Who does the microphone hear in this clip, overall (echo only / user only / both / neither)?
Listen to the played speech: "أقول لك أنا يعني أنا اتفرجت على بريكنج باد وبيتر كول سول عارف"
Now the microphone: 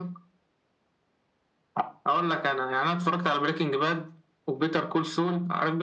echo only